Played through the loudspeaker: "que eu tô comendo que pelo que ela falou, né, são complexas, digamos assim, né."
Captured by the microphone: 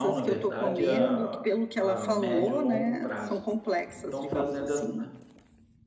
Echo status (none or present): present